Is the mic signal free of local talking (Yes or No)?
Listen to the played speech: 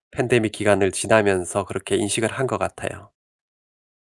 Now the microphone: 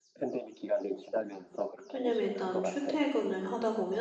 No